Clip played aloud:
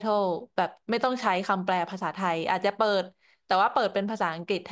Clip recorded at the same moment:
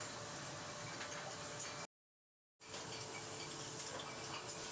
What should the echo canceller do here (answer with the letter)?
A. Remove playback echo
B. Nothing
B